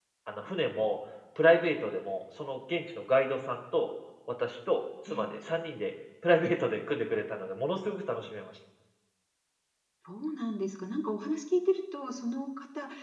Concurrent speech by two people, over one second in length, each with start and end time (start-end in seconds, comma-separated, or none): none